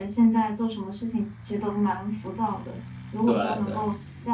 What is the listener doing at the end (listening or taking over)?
listening